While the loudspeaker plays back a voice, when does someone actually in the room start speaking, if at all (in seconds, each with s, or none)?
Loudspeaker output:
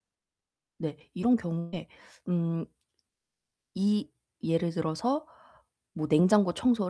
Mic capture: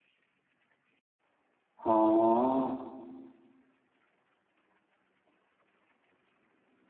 1.8 s